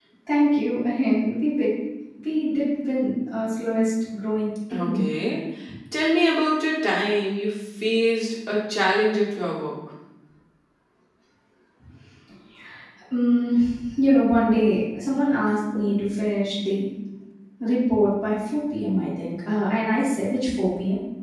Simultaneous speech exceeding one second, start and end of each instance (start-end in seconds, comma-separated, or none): none